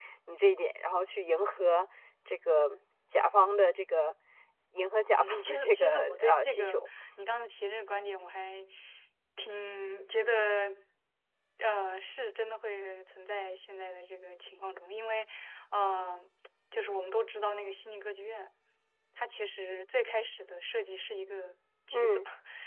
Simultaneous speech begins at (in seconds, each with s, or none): 5.2 s